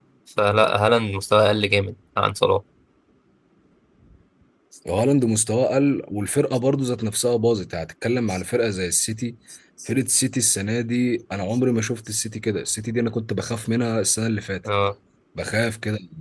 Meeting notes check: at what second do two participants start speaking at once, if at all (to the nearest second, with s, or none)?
none